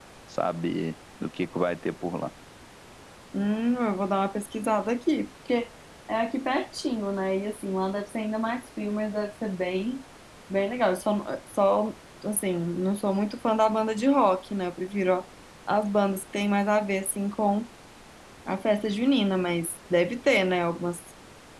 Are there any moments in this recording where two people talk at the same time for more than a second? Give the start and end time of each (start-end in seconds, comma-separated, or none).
none